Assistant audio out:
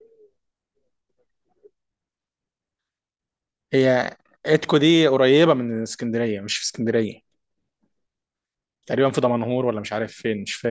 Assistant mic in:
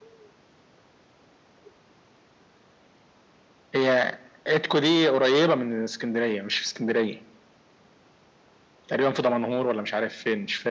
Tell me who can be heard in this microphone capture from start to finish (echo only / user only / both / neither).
echo only